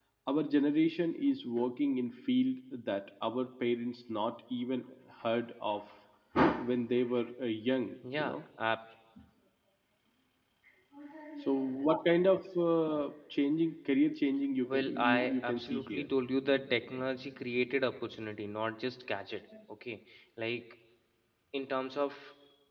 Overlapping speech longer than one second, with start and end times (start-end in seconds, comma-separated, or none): 14.6-16.1